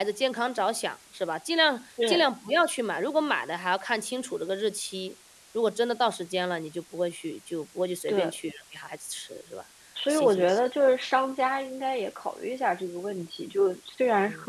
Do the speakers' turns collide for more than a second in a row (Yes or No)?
No